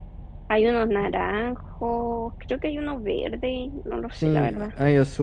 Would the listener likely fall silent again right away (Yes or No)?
No